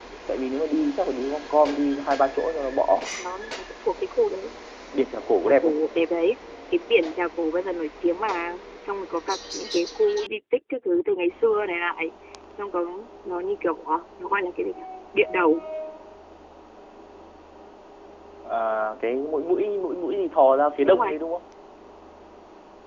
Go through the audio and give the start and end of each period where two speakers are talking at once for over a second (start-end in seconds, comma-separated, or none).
none